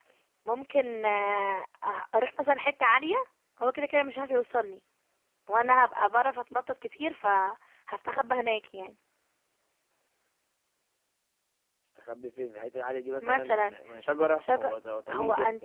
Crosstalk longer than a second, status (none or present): none